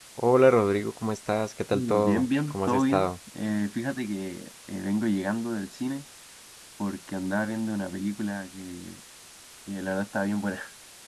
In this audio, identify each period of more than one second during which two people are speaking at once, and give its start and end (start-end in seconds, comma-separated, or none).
1.7-3.1